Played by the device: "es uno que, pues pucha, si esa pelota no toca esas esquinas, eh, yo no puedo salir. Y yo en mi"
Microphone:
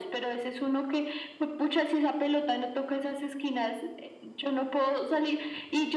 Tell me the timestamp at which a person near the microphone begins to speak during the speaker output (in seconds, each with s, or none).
none